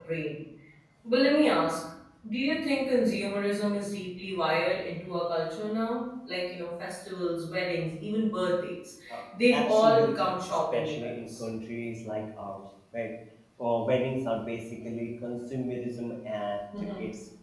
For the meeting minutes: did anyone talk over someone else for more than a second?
Yes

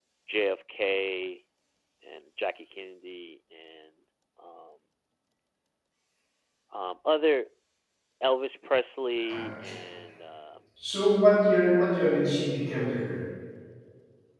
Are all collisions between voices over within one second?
Yes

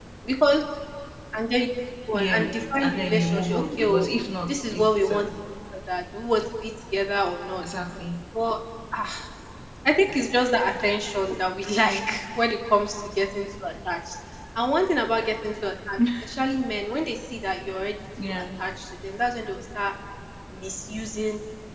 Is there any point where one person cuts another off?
Yes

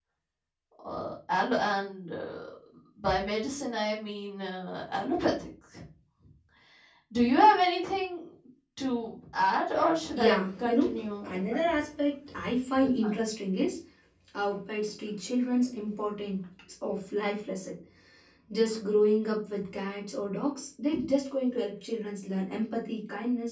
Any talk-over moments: Yes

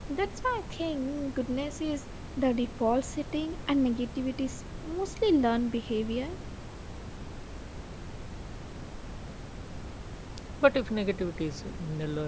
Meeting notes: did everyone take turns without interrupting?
Yes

